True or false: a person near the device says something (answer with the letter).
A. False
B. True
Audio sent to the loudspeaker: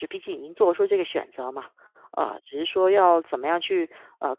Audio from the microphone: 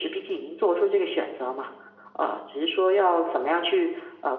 A